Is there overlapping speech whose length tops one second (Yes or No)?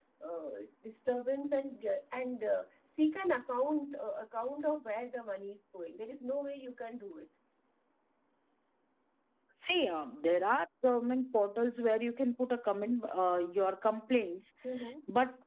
No